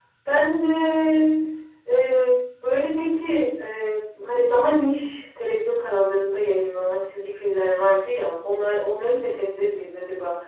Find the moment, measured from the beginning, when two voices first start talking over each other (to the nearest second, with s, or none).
none